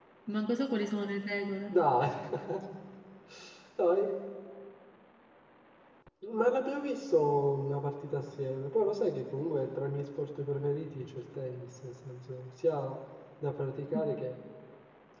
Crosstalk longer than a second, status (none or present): none